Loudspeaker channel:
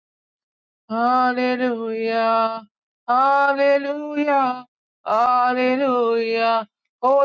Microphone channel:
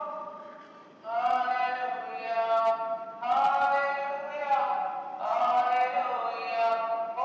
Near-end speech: none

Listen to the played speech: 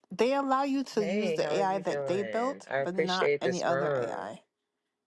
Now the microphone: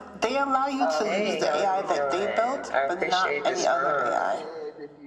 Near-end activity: present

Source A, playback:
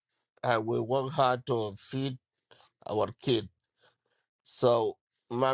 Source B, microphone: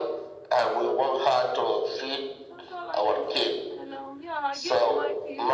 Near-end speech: present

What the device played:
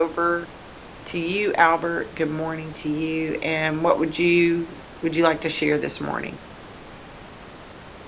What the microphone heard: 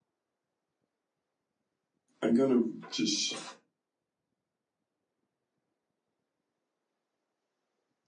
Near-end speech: present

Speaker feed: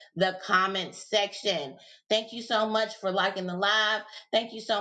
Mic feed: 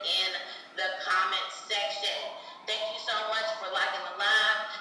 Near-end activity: none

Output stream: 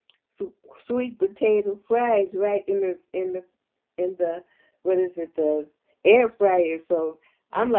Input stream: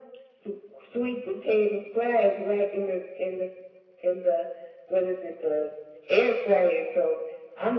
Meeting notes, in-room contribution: none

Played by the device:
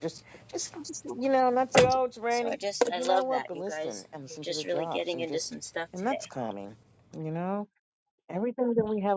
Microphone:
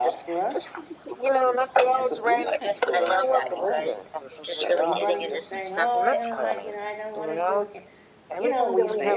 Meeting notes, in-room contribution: present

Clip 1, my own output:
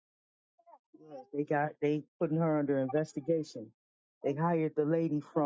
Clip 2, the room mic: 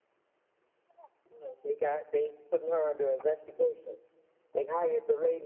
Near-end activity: none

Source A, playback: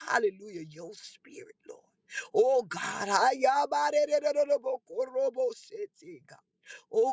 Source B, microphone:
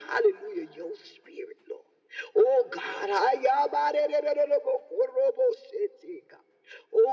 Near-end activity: none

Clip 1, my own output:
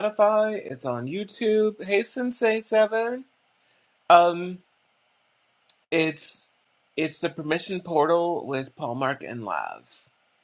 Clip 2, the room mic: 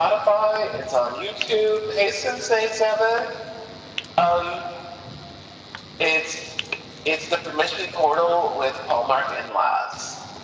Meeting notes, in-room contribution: none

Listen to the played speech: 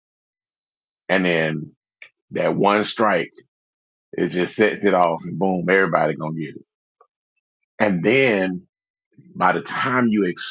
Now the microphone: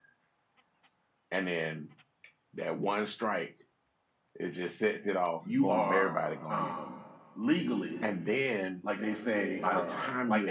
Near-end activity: present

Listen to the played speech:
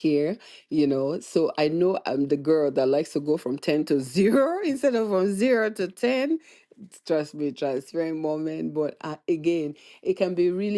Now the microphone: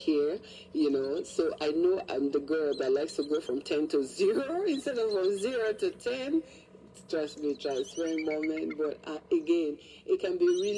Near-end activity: none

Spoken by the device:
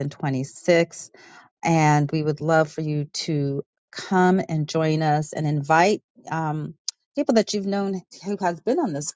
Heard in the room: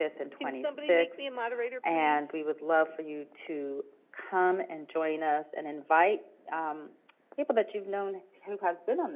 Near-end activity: present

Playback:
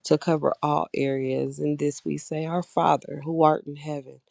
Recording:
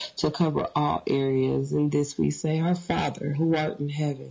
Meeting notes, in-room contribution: none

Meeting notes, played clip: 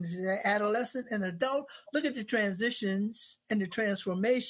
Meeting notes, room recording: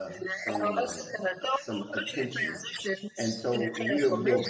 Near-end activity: present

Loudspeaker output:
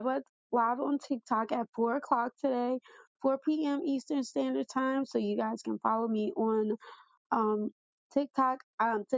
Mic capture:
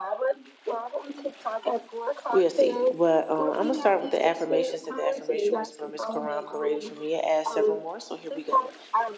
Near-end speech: present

